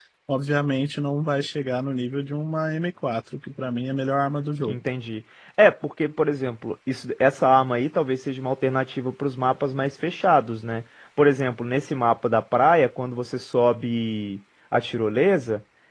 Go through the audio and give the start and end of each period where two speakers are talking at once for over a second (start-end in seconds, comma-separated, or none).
none